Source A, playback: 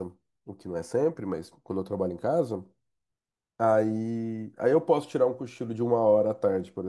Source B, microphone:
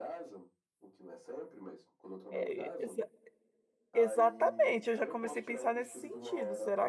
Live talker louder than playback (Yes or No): Yes